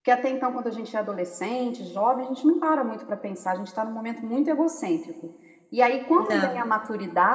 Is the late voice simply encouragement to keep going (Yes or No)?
Yes